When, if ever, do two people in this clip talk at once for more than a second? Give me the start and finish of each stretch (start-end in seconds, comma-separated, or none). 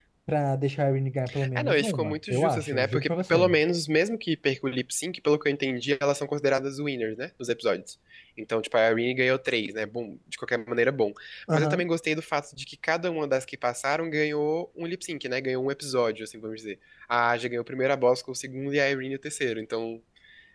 1.6-3.5